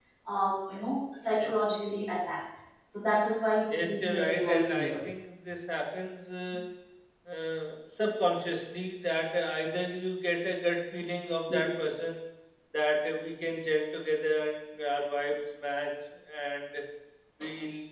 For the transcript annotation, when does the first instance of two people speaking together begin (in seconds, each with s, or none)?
3.7 s